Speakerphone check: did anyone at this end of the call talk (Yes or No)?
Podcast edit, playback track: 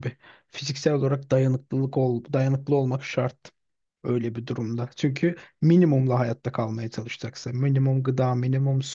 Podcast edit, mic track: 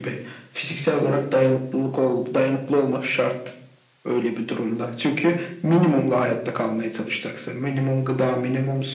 No